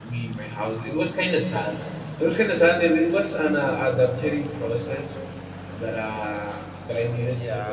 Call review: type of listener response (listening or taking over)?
taking over